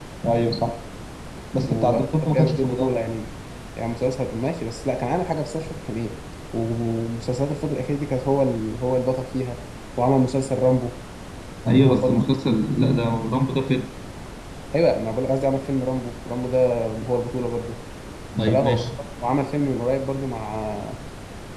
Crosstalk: present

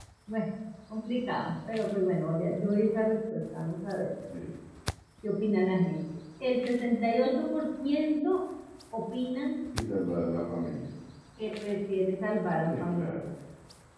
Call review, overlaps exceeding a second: none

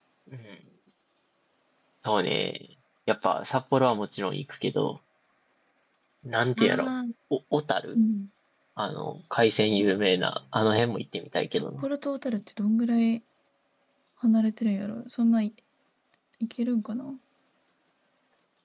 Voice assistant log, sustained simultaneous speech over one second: none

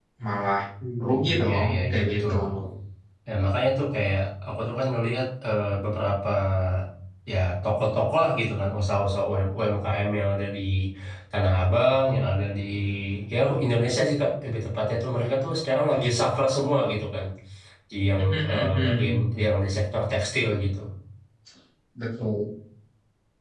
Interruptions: present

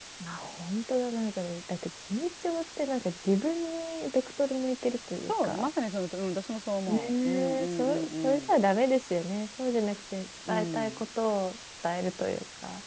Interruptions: present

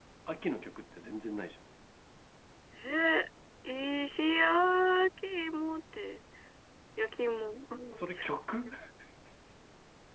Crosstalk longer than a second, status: none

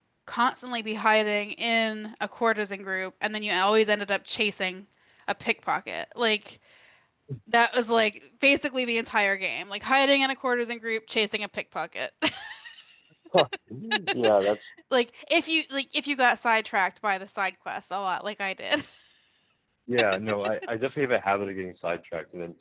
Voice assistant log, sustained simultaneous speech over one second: none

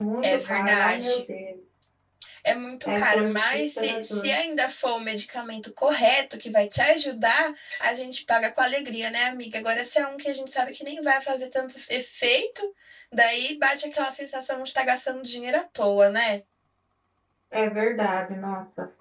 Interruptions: present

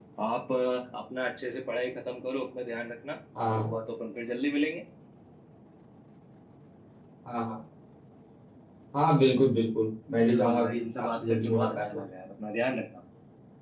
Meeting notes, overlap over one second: present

